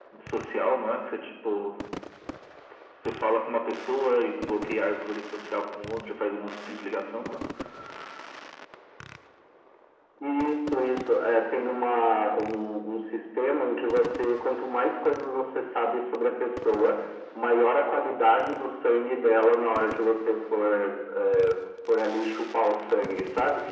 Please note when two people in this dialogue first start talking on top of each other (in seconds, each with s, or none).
none